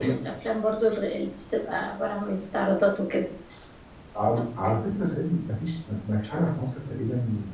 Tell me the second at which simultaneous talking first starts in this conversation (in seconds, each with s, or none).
none